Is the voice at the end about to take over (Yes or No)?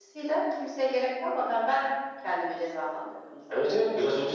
Yes